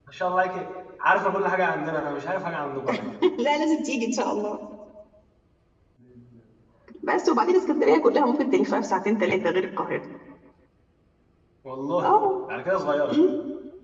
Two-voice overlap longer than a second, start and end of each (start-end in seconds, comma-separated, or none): none